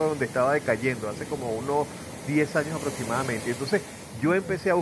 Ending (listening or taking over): listening